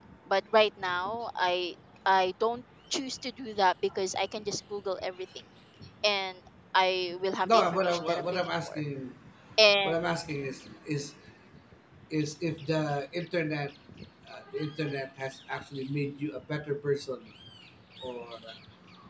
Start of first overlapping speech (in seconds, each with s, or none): 7.4 s